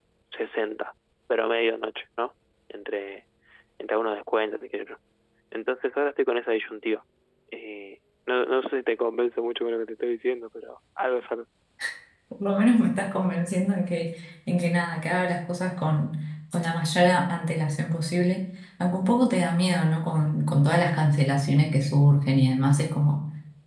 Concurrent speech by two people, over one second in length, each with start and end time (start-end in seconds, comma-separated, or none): none